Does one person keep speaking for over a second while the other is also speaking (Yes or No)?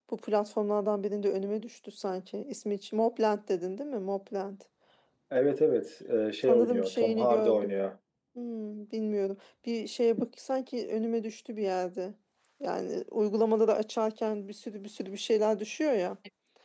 Yes